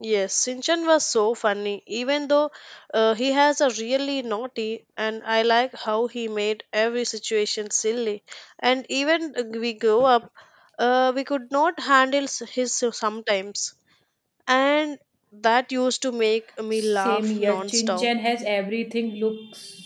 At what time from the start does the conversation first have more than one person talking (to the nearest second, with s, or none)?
17 s